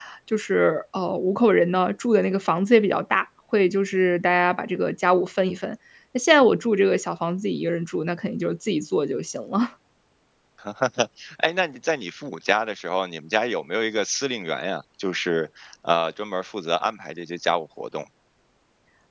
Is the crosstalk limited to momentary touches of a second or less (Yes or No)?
Yes